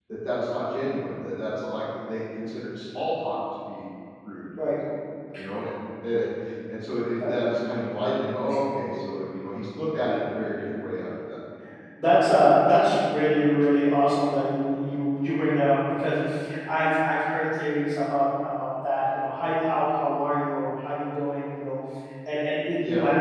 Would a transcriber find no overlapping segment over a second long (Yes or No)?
Yes